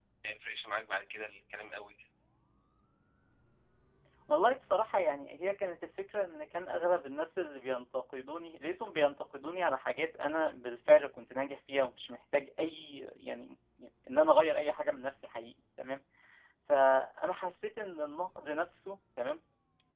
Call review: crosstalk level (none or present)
none